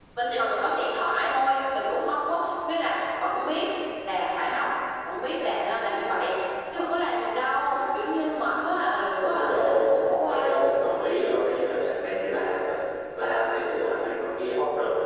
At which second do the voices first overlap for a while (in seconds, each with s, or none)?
9.2 s